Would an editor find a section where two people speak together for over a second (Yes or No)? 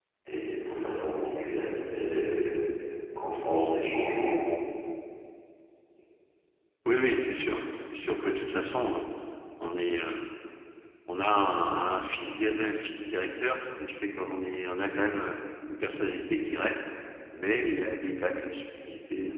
No